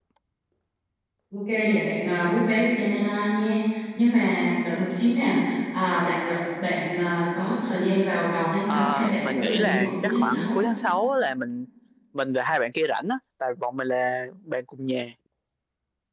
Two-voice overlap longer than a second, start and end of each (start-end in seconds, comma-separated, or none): 8.7-10.6